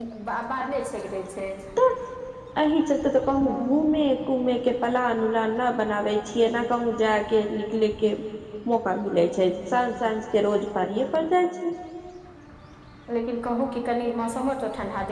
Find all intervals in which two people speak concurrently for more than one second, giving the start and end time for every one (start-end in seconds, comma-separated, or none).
none